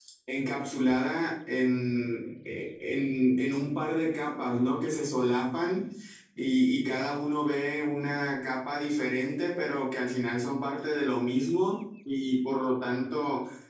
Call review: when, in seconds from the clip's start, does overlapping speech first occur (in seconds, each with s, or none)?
none